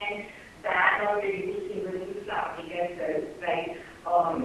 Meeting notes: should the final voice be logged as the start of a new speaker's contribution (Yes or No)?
No